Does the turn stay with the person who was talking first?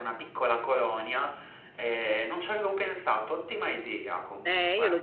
No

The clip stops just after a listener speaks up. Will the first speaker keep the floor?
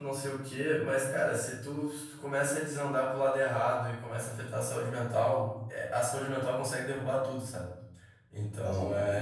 Yes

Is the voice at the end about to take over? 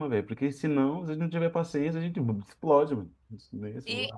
Yes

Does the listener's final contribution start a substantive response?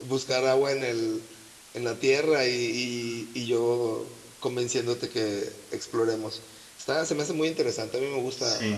Yes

